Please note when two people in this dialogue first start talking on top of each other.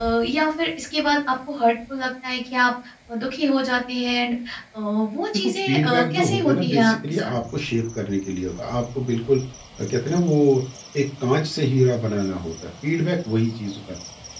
5.3 s

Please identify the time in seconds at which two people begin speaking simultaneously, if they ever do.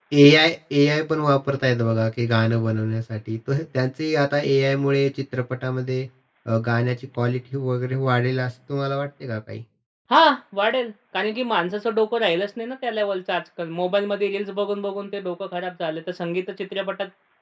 none

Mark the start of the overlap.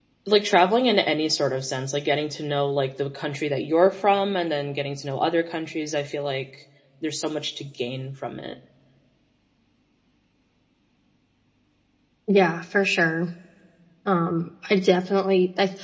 none

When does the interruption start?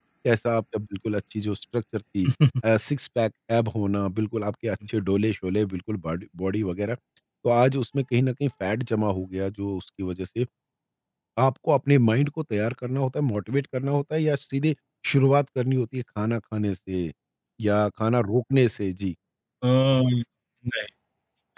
none

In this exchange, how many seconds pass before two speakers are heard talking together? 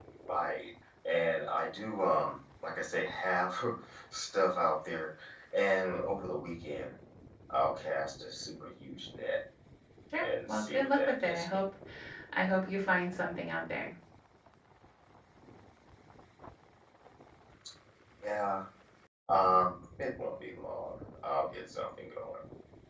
10.2 s

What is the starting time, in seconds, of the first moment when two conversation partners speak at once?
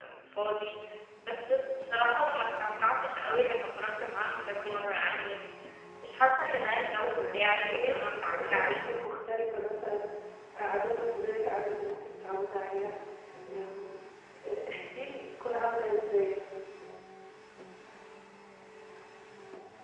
7.2 s

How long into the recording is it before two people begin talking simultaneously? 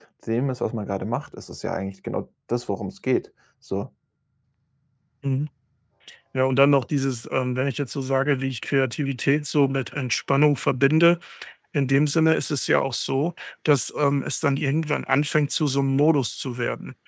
none

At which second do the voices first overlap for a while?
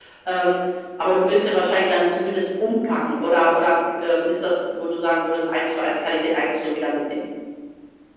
none

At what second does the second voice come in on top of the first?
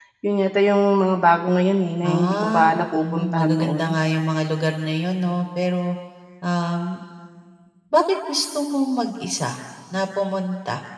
2.0 s

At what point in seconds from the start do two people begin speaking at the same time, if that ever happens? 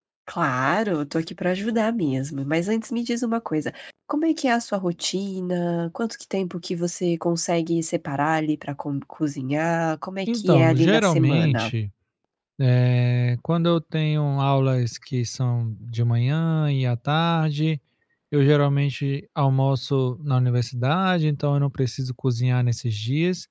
10.3 s

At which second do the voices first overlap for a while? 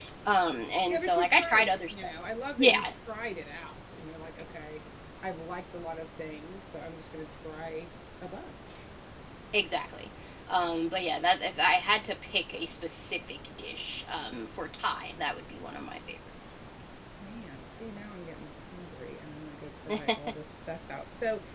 0.9 s

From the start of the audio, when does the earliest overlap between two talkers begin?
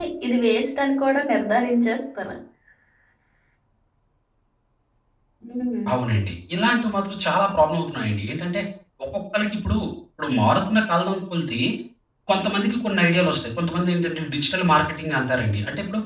none

